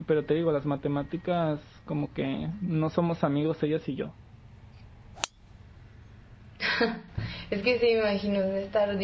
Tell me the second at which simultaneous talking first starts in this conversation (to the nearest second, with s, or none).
none